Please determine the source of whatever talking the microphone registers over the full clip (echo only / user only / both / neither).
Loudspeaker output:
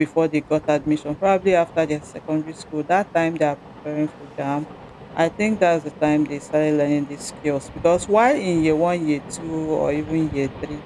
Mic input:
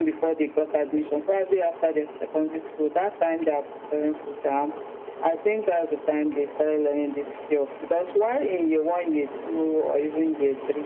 echo only